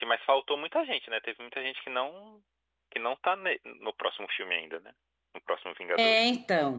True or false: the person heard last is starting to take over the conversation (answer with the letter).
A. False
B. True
B